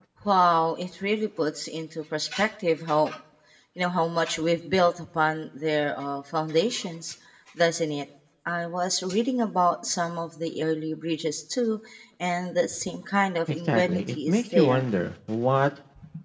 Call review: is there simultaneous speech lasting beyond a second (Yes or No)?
Yes